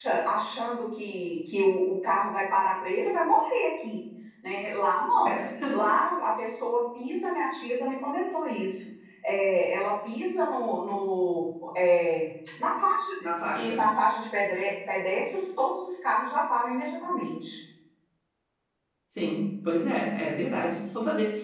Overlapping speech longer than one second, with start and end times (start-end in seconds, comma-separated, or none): none